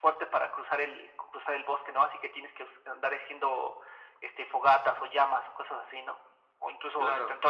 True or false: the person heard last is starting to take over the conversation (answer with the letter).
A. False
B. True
A